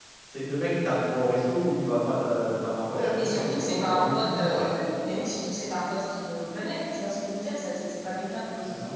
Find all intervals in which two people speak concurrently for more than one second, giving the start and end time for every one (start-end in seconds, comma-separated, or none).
3.2-4.8